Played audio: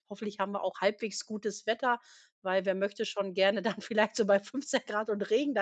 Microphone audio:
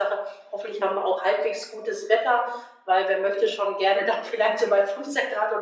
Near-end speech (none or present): none